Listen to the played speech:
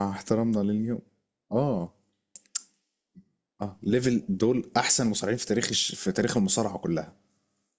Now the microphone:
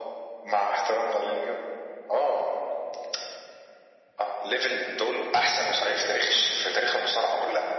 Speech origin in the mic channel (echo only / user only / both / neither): echo only